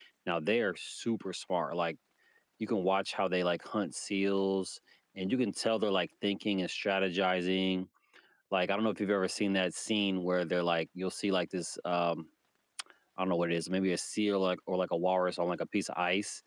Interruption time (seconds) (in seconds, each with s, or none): none